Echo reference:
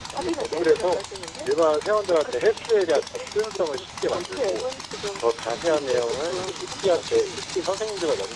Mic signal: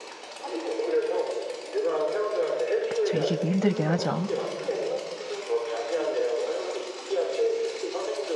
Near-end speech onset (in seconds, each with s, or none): 2.9 s